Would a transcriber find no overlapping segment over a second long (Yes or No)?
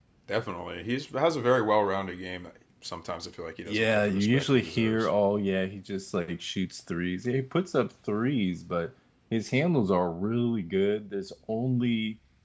No